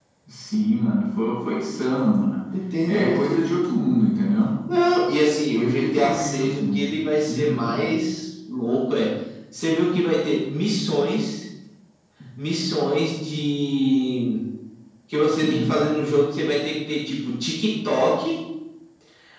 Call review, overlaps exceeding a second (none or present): present